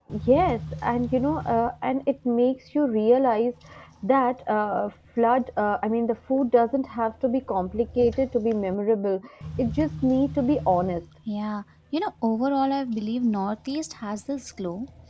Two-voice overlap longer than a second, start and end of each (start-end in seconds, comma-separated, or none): none